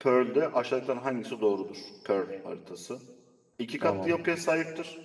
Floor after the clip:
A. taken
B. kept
B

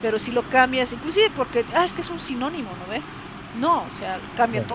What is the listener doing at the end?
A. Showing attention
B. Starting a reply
A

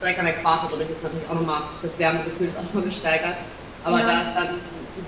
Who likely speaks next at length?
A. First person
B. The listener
A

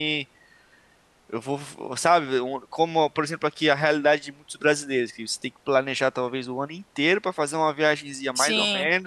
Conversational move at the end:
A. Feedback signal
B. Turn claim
A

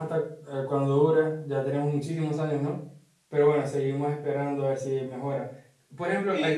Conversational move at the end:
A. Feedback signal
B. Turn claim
A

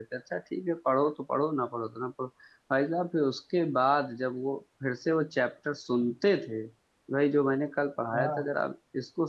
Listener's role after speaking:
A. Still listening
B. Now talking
A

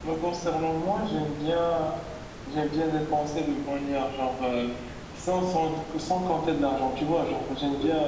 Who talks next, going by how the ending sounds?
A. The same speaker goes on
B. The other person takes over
A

